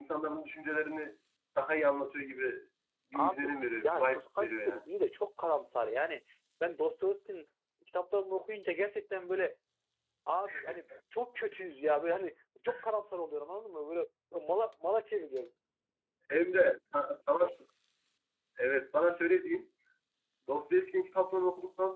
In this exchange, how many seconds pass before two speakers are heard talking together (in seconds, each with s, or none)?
3.1 s